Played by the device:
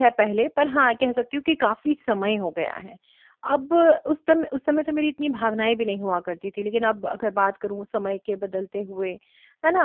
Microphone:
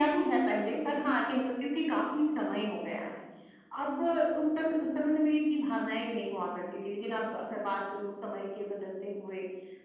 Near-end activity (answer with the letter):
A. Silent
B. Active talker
A